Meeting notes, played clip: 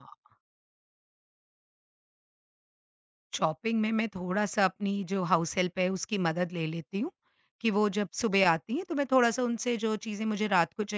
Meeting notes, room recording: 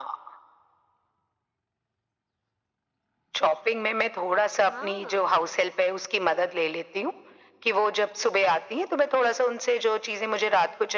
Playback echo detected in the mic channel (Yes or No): Yes